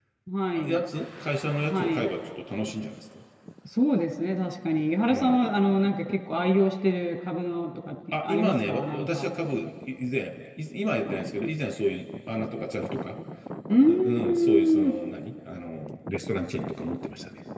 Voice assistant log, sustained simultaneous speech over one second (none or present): present